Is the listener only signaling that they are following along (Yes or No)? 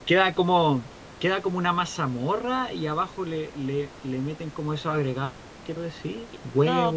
No